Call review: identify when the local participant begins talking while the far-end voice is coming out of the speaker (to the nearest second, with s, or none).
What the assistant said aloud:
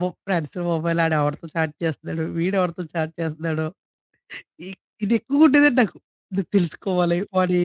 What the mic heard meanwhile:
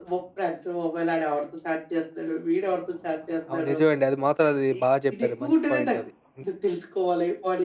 3 s